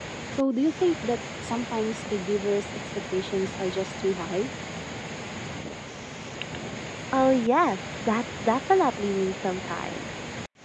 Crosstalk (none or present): none